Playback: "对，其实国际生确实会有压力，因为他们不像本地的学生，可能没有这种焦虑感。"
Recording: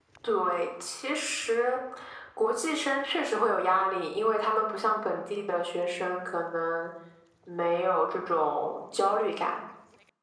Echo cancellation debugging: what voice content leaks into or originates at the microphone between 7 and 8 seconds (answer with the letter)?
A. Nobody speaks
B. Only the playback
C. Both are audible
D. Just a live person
B